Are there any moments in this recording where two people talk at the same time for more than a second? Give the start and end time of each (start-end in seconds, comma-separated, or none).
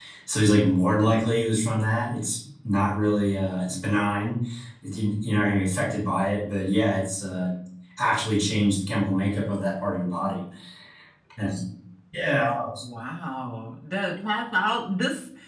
none